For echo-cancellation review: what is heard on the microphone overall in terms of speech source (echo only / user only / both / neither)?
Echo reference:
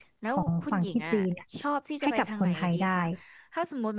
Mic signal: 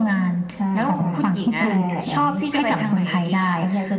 both